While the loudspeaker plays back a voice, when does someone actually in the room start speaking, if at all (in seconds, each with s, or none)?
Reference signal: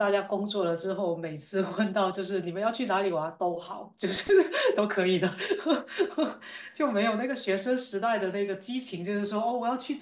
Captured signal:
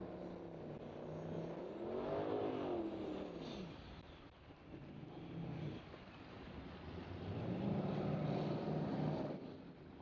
none